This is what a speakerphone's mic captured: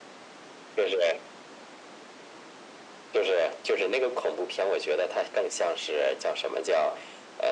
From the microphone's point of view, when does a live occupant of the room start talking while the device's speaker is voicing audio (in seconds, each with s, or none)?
none